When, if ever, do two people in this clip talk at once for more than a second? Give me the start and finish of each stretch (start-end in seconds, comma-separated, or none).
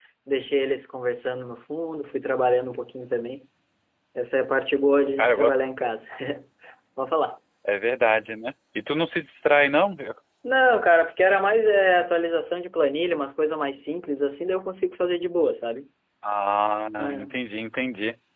none